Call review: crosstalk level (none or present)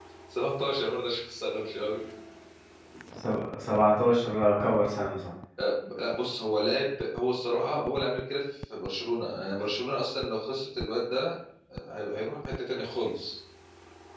none